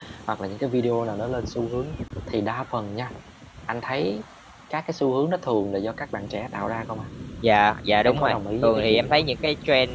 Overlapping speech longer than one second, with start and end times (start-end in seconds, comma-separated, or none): 8.0-9.3